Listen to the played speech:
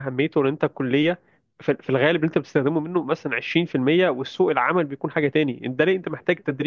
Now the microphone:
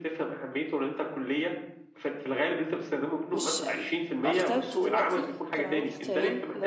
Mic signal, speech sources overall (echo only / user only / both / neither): both